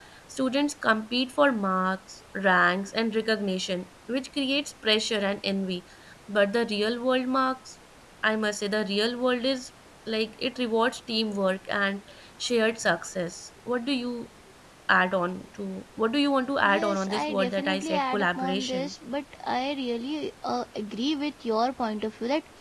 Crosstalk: present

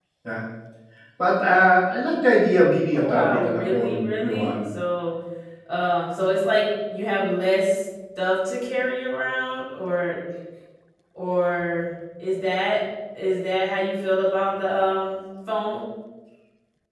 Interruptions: present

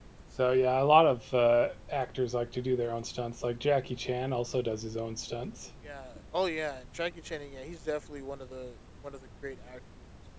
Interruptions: none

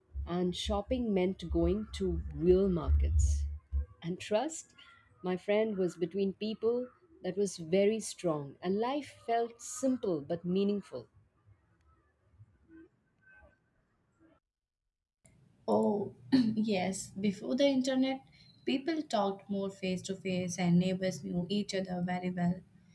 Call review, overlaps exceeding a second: none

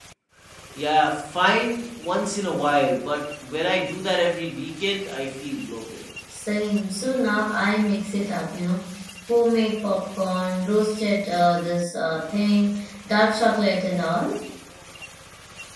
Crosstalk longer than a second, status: none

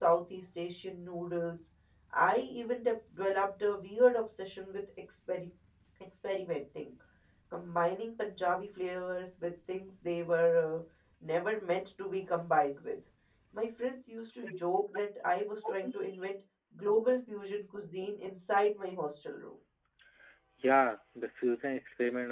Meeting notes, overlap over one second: none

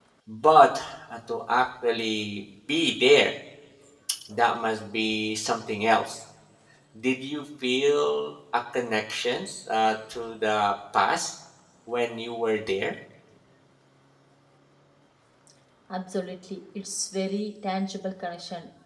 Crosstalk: none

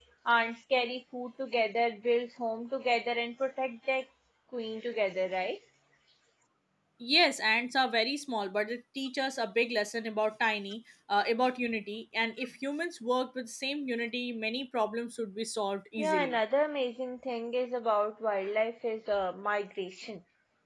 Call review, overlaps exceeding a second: none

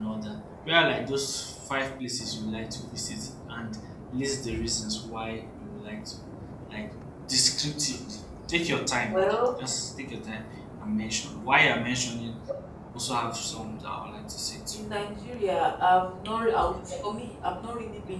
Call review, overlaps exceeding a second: none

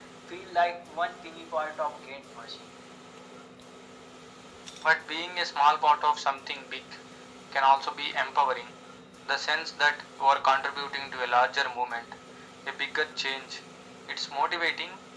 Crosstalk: none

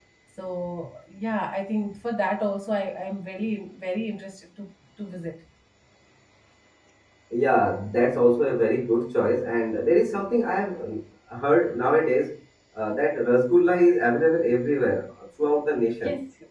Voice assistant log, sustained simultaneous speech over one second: none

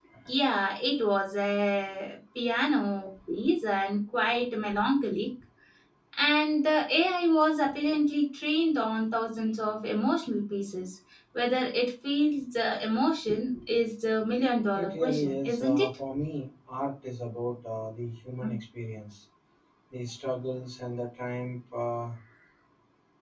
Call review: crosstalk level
present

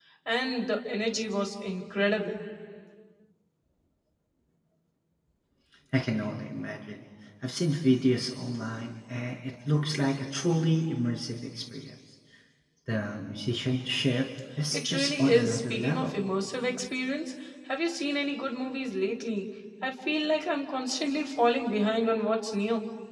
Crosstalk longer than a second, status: present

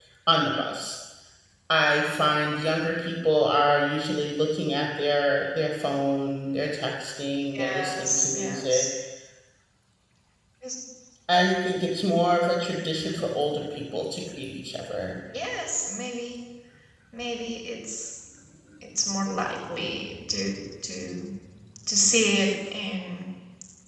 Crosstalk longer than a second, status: present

